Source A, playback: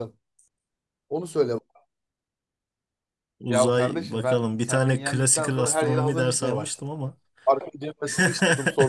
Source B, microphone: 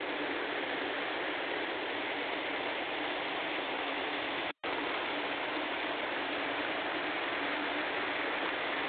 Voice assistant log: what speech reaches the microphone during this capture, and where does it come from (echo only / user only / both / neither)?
neither